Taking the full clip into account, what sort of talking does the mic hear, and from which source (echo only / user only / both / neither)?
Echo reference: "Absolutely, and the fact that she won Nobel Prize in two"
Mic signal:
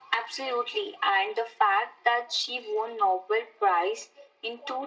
echo only